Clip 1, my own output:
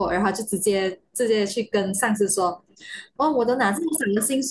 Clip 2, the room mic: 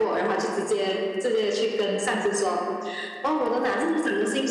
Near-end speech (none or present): none